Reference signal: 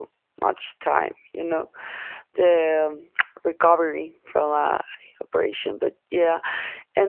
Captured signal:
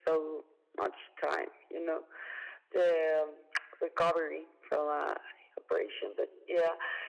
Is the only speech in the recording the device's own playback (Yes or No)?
Yes